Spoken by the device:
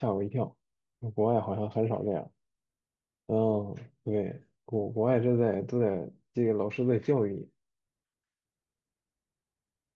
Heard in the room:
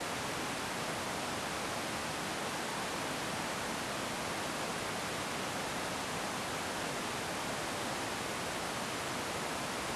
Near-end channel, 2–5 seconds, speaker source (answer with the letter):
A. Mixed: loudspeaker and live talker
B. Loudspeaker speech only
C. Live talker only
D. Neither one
D